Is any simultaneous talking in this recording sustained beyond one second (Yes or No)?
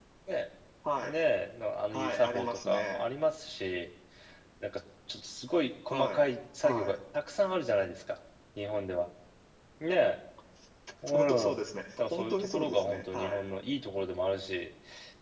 Yes